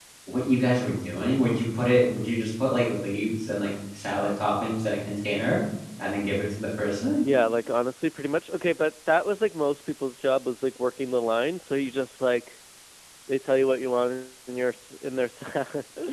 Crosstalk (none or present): none